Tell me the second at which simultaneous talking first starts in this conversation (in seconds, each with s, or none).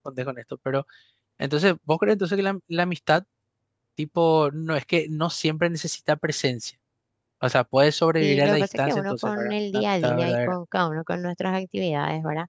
8.2 s